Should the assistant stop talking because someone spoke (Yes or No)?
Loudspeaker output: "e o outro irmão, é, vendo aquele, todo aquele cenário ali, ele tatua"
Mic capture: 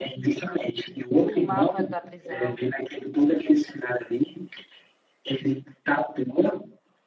Yes